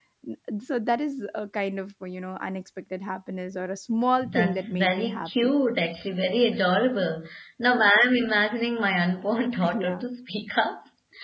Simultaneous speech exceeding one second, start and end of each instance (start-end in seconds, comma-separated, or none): 4.3-5.6